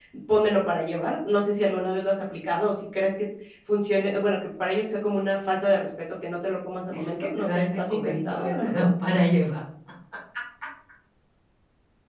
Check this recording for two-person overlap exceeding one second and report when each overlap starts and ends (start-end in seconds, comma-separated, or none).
6.9-8.9